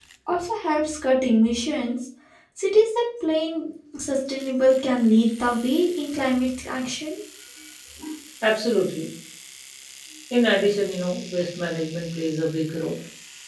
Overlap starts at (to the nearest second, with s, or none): none